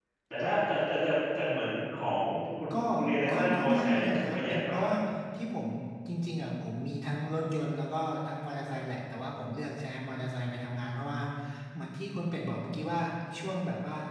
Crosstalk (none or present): present